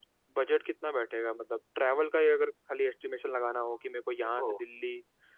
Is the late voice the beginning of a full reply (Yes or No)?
No